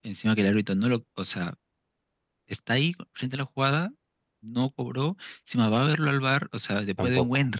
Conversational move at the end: listening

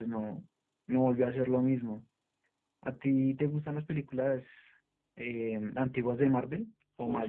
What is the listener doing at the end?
taking over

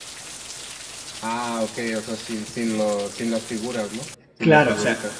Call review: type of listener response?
taking over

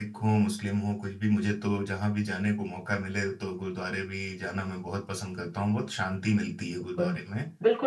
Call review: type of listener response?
taking over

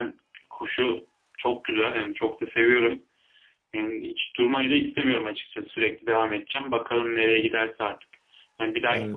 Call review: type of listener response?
listening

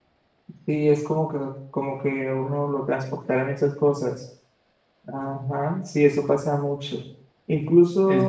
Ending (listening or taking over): listening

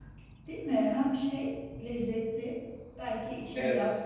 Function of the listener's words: listening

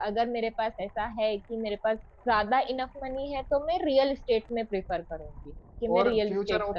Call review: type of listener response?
taking over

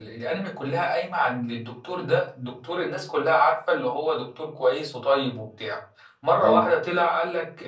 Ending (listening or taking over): listening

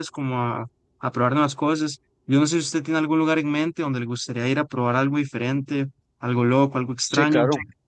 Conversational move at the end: taking over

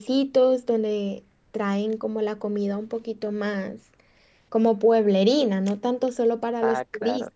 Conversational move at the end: taking over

